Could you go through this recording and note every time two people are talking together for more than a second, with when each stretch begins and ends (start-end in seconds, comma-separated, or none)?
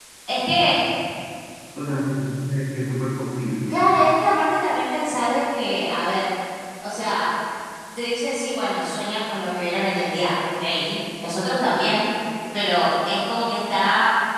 none